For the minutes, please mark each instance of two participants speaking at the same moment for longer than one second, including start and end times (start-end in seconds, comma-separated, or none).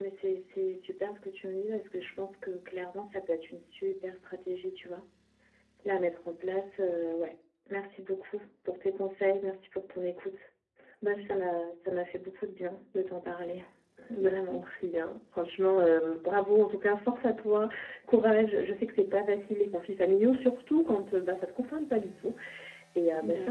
none